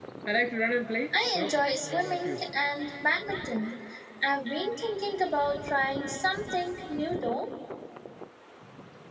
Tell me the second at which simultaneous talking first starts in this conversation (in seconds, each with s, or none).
1.1 s